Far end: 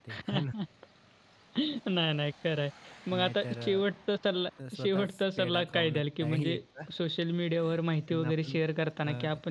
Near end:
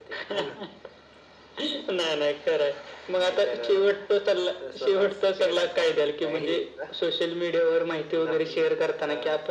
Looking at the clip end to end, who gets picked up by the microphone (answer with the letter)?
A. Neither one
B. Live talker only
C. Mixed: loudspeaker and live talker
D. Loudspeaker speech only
D